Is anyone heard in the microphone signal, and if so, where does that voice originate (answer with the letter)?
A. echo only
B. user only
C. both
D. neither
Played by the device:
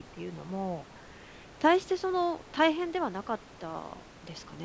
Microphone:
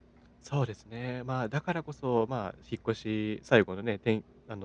B